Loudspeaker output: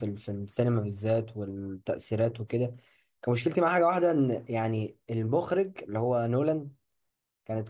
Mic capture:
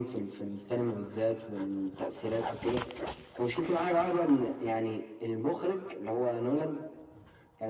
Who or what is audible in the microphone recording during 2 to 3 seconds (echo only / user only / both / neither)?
echo only